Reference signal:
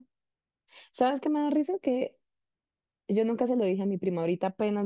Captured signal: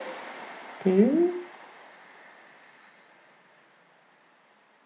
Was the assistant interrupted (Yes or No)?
Yes